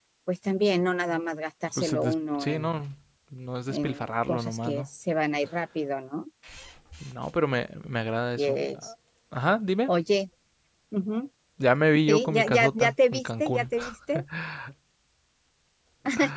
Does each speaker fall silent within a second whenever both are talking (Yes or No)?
No